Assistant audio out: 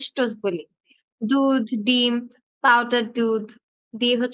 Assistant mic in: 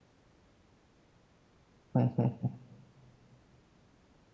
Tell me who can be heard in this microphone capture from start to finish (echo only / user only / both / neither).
user only